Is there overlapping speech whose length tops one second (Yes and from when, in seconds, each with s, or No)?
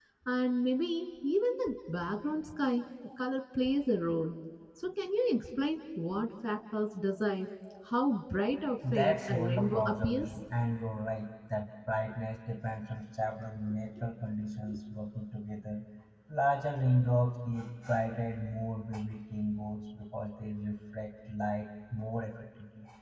Yes, from 8.8 s